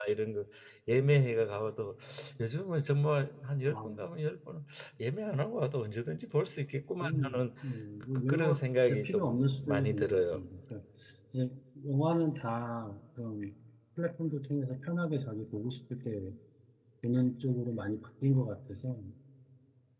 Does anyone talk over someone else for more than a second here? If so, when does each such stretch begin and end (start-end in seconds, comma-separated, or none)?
8.2-10.4